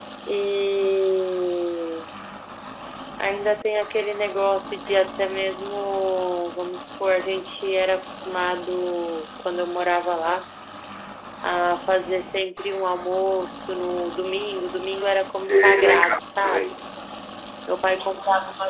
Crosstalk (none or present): present